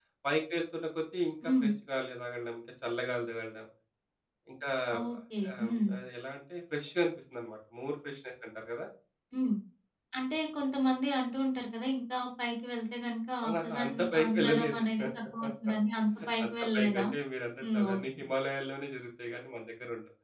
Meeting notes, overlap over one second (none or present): present